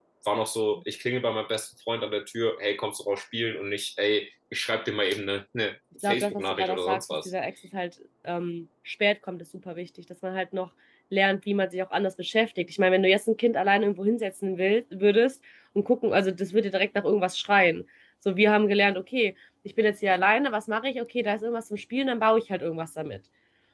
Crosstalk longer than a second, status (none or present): present